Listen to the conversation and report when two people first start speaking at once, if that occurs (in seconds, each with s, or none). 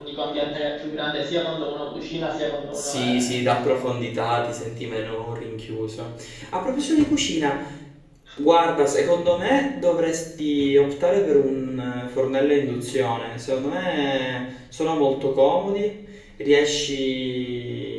2.7 s